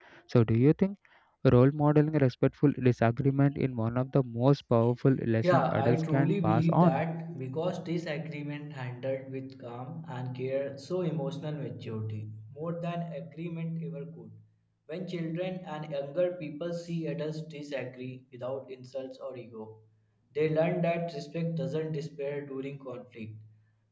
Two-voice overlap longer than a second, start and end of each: 5.4-7.0

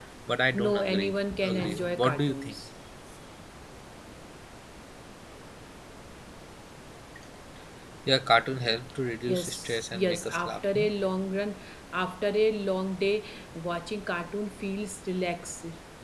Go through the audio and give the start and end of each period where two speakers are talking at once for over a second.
0.5-2.5, 9.3-10.9

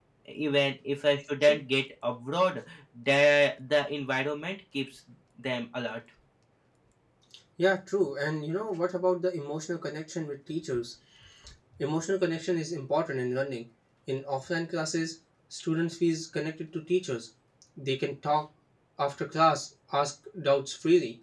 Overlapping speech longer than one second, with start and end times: none

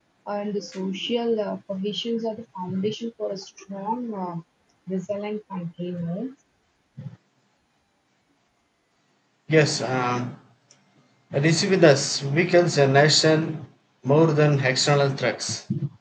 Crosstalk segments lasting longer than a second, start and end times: none

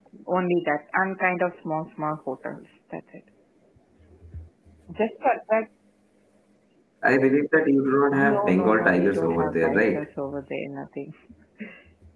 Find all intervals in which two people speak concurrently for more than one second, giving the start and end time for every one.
8.2-10.0

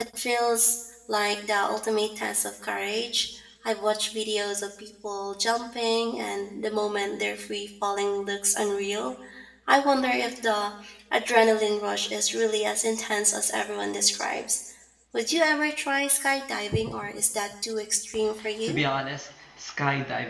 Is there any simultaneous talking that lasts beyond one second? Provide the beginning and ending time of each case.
none

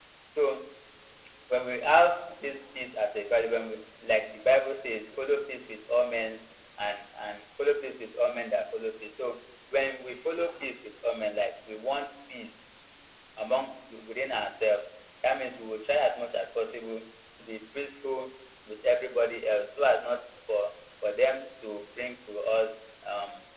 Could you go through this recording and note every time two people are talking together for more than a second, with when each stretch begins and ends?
none

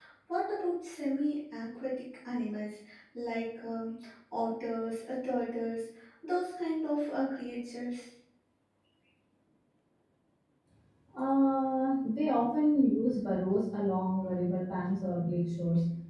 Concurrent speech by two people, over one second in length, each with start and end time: none

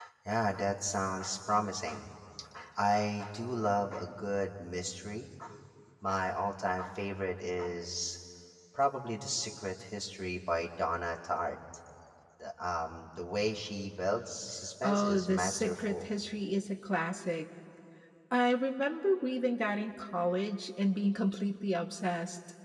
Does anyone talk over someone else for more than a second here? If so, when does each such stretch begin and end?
14.8-16.0

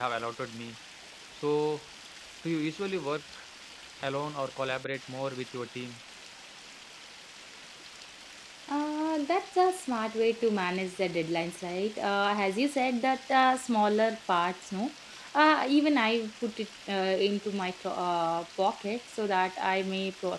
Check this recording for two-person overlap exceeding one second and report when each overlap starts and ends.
none

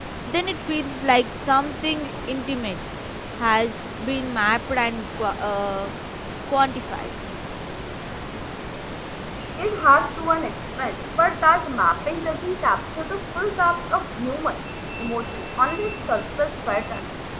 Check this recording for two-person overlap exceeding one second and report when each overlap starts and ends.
none

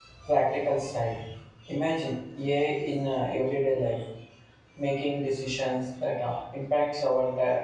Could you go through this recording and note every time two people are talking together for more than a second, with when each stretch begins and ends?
none

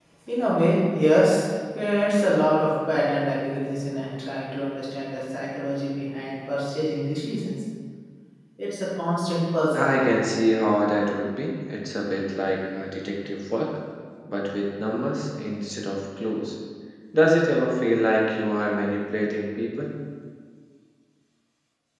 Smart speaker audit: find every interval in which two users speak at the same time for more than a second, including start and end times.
none

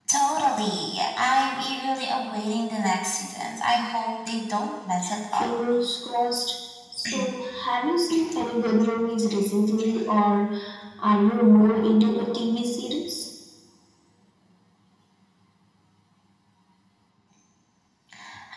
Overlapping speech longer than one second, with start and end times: none

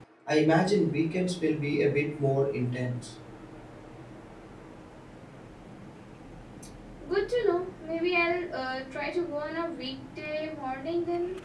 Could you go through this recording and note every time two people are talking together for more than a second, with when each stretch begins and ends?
none

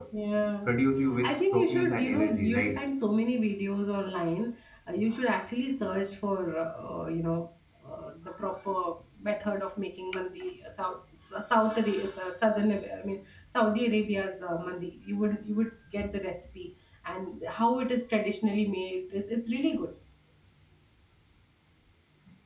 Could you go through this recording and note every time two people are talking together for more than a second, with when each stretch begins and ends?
1.2-2.9

